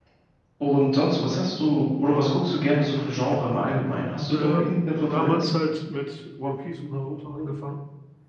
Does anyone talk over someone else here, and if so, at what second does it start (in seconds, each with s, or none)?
4.3 s